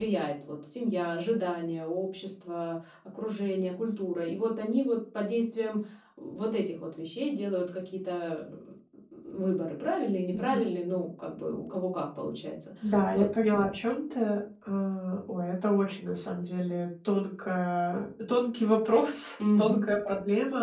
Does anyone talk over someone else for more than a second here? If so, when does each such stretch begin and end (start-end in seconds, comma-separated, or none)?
none